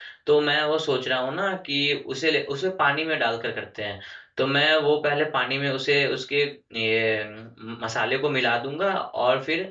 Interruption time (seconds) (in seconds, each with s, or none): none